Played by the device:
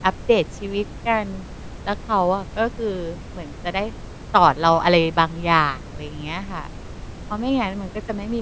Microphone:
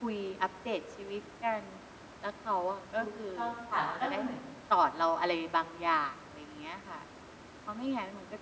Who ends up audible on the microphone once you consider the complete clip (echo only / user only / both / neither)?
both